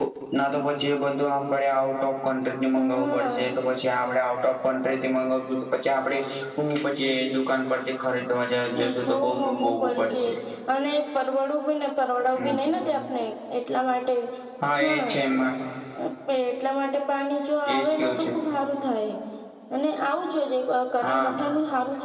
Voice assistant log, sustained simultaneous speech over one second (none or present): present